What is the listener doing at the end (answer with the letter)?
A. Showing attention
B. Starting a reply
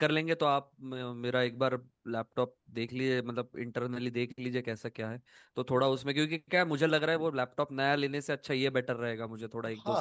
B